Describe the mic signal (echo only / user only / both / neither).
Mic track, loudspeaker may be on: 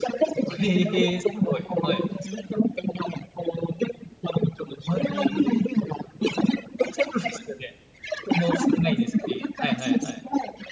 both